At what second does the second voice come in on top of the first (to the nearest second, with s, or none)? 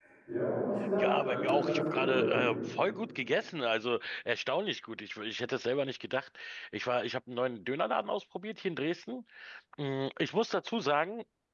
1 s